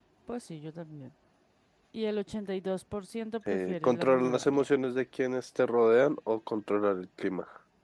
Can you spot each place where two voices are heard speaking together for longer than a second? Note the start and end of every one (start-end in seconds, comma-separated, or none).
3.5-4.7